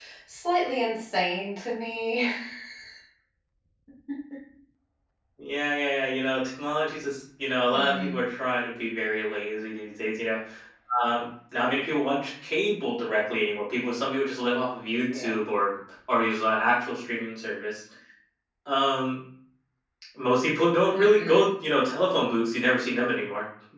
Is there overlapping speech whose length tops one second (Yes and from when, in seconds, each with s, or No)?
No